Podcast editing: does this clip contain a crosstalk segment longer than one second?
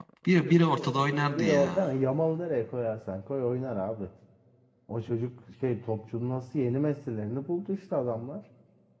No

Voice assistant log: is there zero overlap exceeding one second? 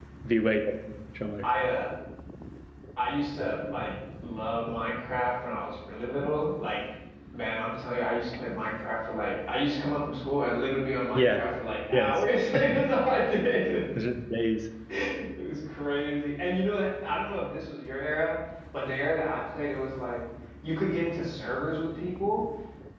Yes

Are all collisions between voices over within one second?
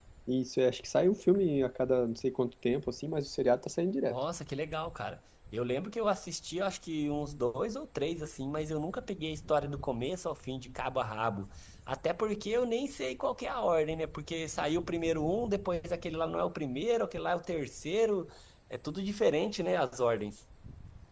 Yes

